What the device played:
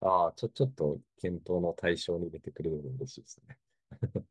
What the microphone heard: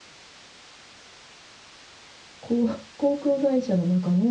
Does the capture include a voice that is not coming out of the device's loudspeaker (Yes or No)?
Yes